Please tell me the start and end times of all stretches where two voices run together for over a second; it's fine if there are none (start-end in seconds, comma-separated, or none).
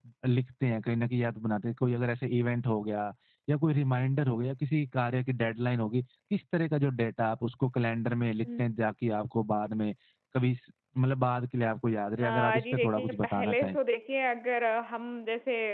12.2-13.8